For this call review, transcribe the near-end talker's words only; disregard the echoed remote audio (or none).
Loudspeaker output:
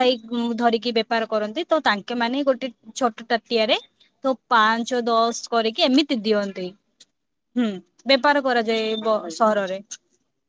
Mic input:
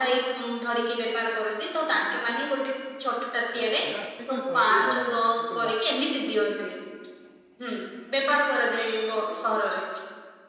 ର ଅଛି ନା ସେଥିପାଇଁ ସହର ଟିକେ ଗରମ ହୁଏ କିନ୍ତୁ ଗାଁ